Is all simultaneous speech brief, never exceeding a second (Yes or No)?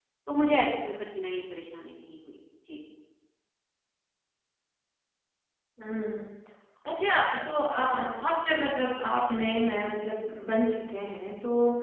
Yes